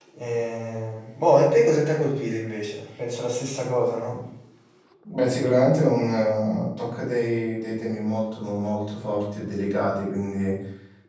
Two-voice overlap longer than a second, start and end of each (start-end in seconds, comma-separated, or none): none